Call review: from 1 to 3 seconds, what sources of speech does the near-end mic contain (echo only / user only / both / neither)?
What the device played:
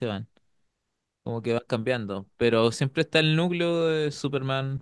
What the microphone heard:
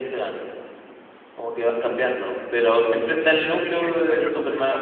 echo only